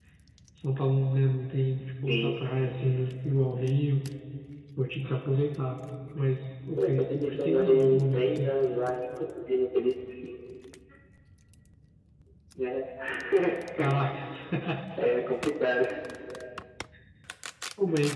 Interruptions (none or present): present